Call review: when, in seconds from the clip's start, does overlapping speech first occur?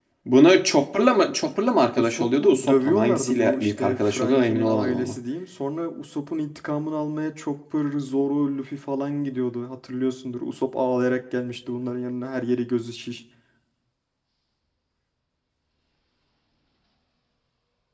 2.0 s

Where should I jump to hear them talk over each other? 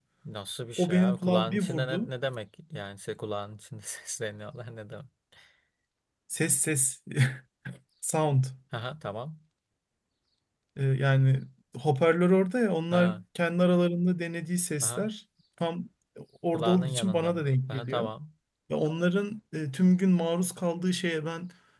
0.8 s

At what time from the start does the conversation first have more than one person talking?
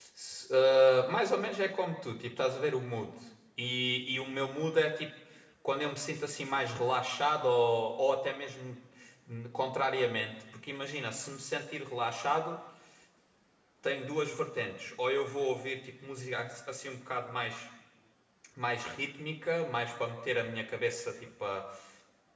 none

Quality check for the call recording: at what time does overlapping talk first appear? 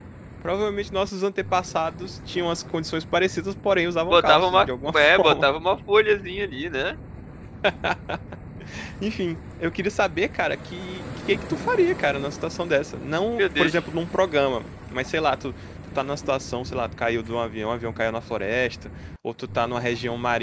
4.1 s

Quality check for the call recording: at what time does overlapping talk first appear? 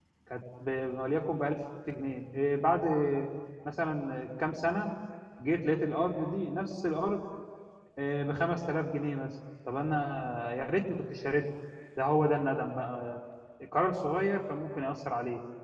none

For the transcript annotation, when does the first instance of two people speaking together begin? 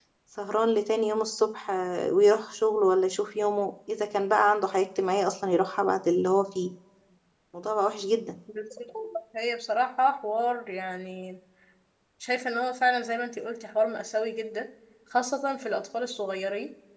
none

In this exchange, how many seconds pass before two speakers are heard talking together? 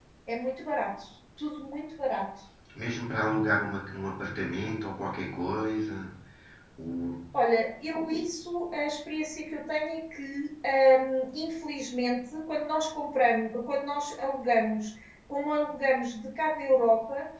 none

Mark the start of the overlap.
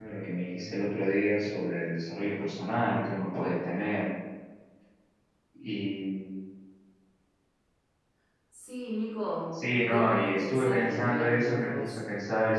9.8 s

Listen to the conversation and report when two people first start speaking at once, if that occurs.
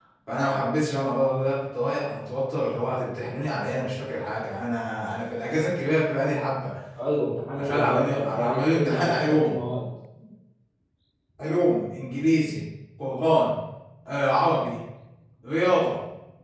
7.6 s

